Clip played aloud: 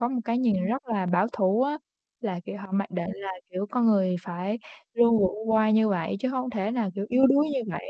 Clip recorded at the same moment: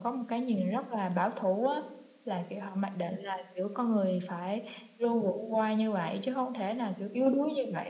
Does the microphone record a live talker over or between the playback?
No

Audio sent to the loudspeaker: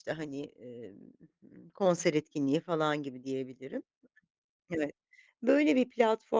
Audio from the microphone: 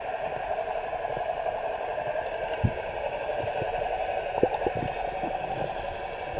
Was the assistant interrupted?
No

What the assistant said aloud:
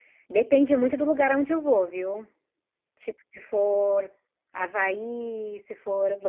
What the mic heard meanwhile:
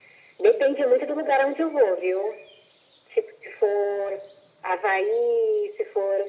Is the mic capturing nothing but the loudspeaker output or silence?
Yes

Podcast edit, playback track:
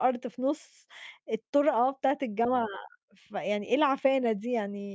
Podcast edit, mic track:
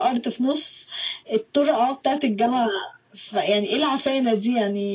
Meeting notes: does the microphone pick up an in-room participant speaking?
No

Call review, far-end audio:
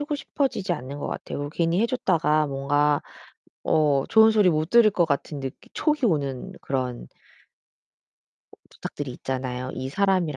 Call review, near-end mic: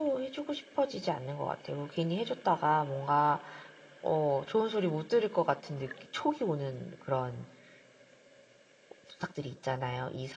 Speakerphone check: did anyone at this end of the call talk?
No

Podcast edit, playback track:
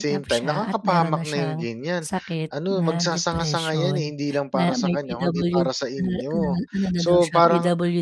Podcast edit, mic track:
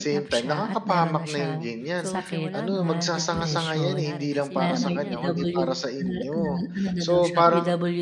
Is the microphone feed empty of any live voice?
No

